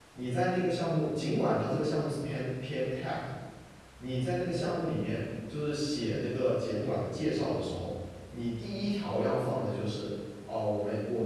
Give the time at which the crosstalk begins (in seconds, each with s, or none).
none